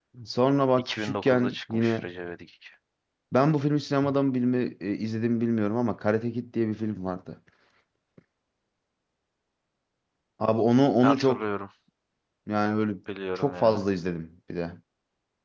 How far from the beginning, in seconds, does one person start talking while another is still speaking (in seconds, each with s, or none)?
0.8 s